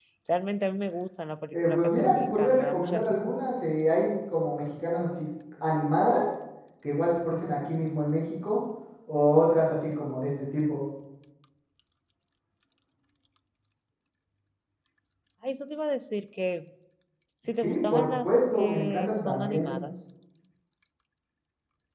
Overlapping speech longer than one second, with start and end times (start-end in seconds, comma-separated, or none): 1.5-3.3, 17.6-19.8